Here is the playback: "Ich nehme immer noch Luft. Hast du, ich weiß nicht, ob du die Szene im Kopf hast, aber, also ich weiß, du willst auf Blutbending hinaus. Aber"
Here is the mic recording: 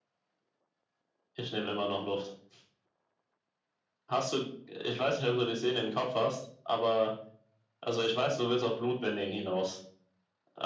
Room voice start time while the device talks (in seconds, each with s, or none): none